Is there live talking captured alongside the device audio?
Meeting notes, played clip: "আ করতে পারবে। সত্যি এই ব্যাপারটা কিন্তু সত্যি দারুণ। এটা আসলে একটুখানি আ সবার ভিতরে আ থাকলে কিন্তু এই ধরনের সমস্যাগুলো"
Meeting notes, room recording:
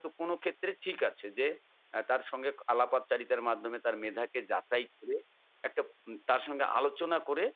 Yes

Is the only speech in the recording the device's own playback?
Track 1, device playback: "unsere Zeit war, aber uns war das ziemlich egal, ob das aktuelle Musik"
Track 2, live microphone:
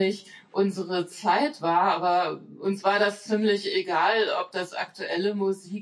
Yes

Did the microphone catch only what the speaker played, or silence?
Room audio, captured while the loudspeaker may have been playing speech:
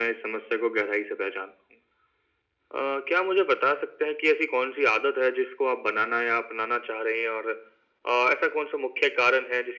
Yes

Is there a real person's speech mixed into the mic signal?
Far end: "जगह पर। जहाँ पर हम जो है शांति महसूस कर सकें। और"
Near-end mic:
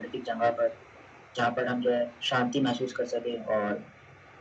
No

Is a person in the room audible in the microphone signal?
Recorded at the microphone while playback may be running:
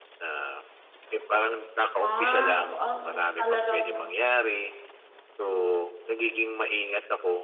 Yes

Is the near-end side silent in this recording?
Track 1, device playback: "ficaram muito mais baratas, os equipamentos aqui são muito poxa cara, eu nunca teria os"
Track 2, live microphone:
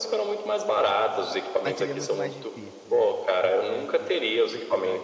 No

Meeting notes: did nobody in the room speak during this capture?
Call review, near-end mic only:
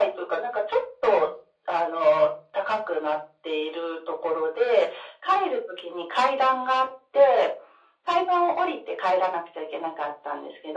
Yes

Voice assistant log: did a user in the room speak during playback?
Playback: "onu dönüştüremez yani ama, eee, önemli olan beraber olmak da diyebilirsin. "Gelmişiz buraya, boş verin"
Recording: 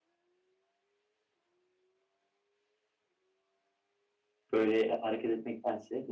Yes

